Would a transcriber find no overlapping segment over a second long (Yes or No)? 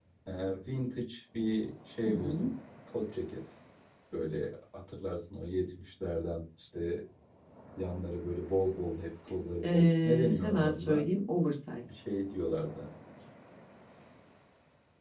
No